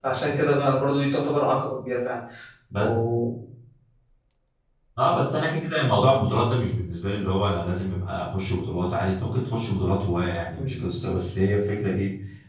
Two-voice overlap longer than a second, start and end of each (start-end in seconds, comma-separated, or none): none